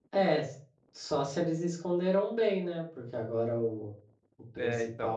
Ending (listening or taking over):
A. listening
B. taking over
A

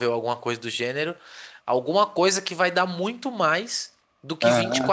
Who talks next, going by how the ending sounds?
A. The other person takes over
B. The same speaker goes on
B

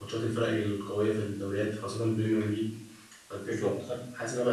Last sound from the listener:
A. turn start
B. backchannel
B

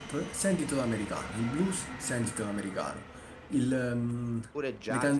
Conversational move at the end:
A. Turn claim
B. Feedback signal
A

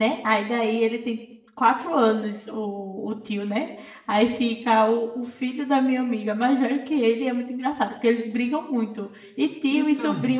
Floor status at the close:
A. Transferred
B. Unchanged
B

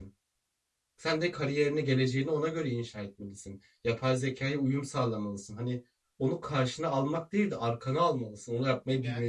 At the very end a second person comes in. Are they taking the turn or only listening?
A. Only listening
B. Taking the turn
B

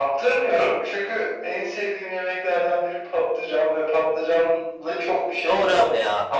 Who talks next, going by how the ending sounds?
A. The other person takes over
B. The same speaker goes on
A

